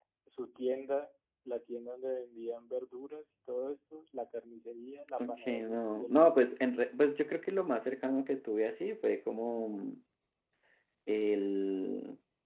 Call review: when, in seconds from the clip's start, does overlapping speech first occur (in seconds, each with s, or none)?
5.2 s